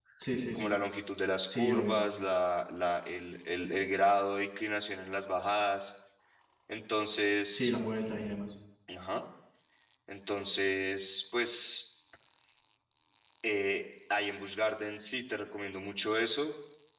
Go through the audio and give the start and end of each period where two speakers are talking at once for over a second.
none

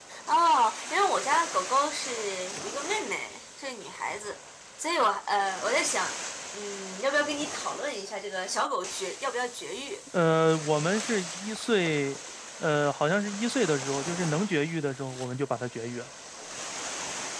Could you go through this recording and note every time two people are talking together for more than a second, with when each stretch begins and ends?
none

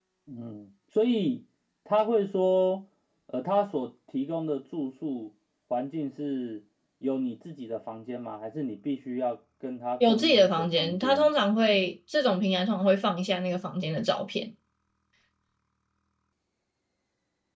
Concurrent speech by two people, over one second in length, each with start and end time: 10.1-11.3

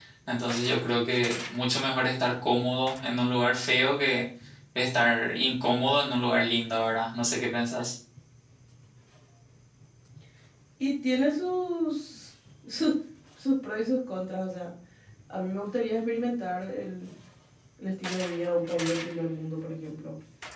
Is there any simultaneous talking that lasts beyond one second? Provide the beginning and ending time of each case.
none

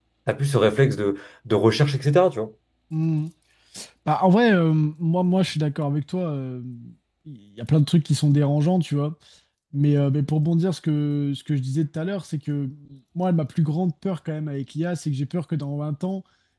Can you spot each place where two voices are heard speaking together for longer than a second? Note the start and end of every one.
none

